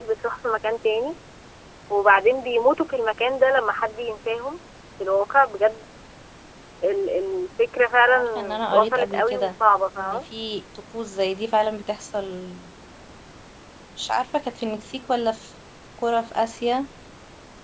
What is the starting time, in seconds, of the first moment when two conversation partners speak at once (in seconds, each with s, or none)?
8.1 s